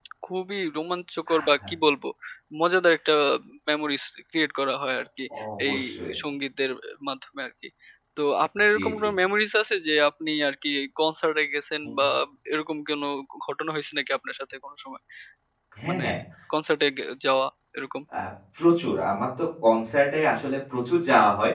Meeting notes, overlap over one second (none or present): none